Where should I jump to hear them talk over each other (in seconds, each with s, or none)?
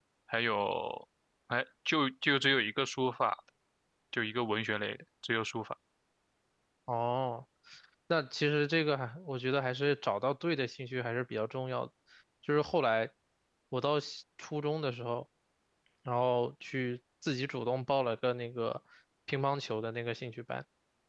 none